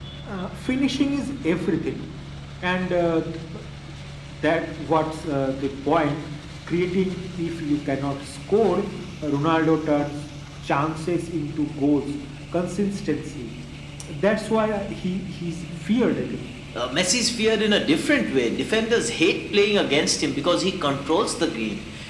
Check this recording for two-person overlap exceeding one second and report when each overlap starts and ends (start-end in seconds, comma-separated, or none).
none